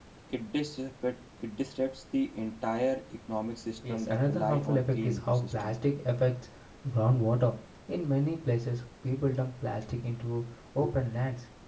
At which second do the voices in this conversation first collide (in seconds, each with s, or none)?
3.8 s